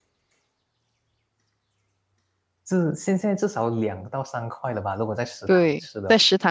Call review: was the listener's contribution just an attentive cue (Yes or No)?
No